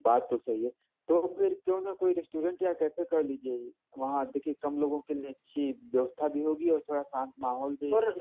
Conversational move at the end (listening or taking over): taking over